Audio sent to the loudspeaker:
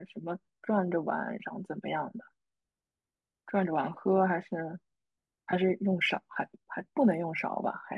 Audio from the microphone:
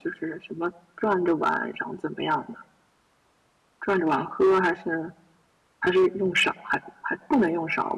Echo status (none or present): present